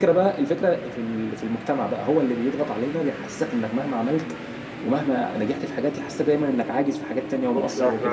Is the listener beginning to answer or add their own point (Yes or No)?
Yes